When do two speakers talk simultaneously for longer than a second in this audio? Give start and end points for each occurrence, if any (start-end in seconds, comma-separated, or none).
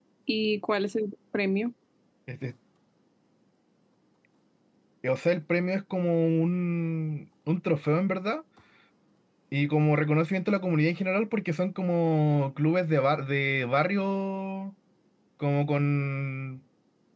none